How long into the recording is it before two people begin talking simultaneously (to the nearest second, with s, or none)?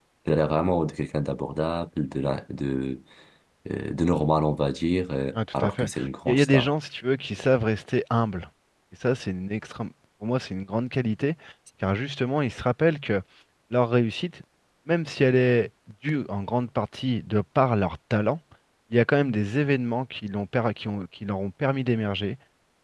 5 s